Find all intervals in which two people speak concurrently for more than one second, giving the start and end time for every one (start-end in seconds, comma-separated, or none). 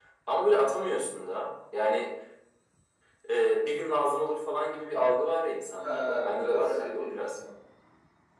5.8-7.4